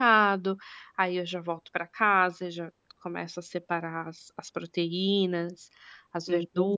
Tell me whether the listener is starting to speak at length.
Yes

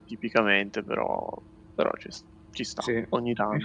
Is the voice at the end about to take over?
Yes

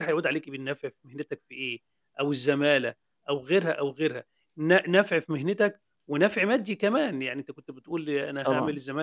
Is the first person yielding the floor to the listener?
No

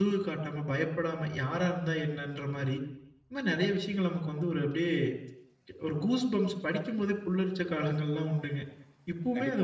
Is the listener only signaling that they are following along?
No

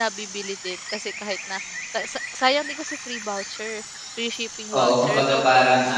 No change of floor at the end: No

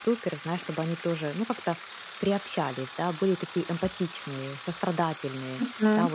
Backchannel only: No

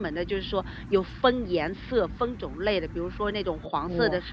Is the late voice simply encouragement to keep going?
Yes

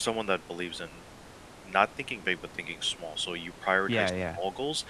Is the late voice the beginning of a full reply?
No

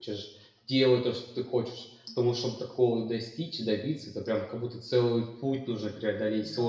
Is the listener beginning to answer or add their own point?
Yes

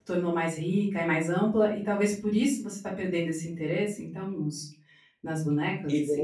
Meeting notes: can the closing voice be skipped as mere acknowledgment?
No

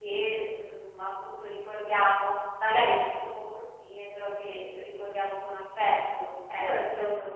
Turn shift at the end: Yes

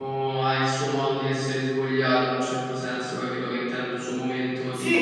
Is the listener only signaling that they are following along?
Yes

